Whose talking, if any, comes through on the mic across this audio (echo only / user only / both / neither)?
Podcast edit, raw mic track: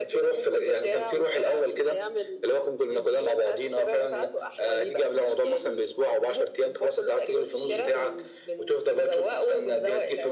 echo only